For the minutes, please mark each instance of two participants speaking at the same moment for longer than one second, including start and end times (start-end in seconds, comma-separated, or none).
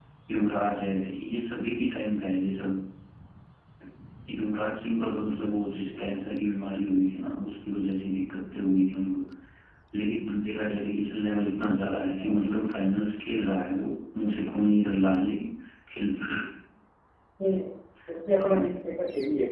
none